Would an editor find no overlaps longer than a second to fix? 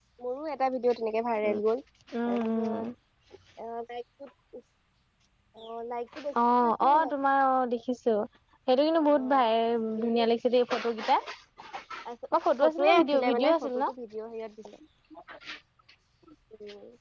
No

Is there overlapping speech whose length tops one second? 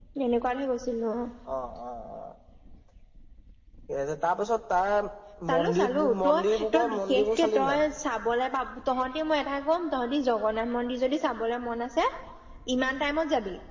Yes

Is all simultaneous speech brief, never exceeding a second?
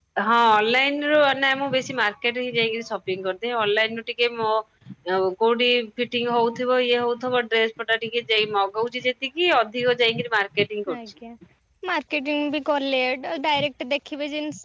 Yes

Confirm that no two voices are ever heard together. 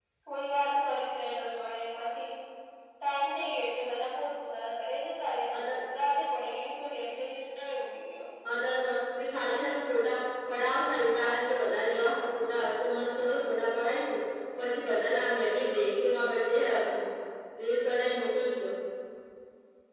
Yes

